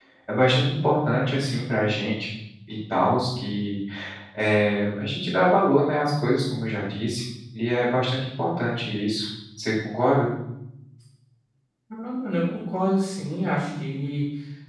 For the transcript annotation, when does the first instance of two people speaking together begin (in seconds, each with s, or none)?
none